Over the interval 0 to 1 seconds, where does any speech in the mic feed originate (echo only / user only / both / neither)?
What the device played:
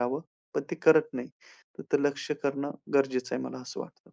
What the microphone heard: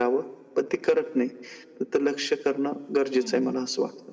echo only